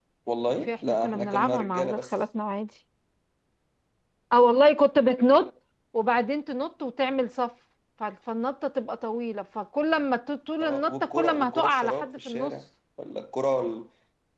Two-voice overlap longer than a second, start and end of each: 0.7-2.1, 10.6-12.5

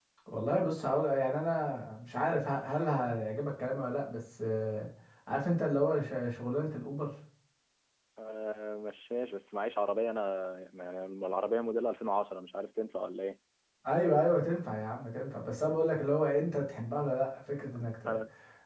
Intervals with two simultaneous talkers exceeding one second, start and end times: none

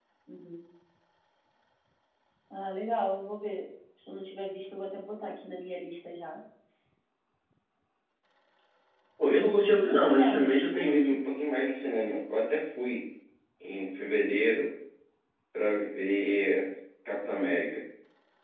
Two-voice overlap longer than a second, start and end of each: 9.4-11.2

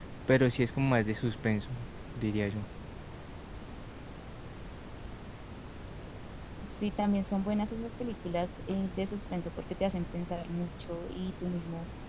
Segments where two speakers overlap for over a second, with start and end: none

